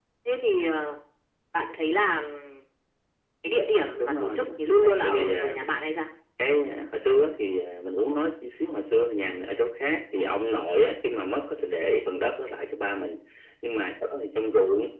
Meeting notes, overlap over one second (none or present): present